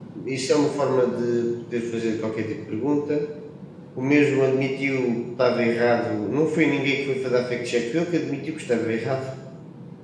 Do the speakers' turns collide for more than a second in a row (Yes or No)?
No